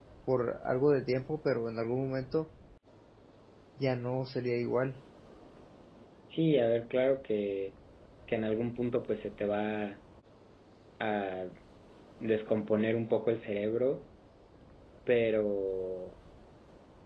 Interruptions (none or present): none